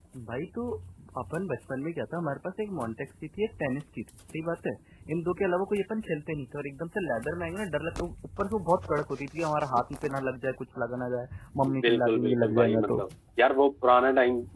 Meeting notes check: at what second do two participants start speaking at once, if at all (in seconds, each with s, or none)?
11.7 s